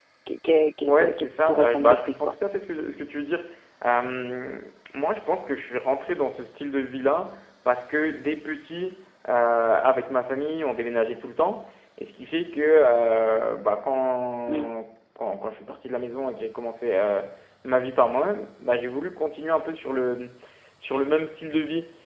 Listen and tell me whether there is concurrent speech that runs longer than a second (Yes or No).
Yes